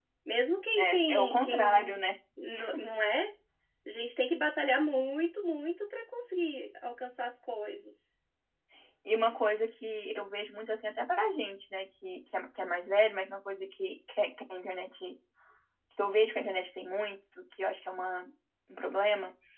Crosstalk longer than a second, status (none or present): present